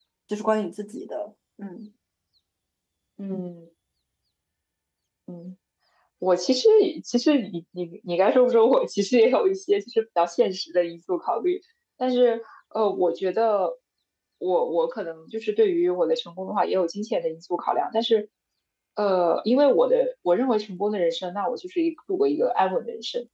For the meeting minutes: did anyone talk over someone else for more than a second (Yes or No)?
No